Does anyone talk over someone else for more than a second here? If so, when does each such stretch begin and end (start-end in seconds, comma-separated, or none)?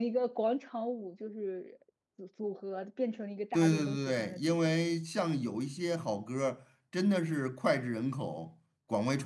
3.5-4.8